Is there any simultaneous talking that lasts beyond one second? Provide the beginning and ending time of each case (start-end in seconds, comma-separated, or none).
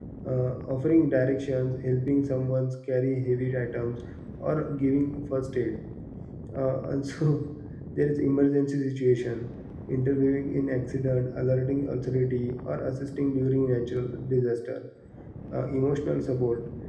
none